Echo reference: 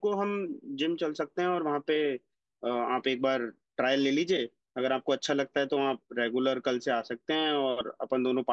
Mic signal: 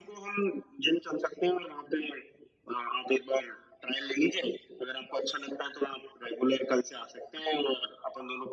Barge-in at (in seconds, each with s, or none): none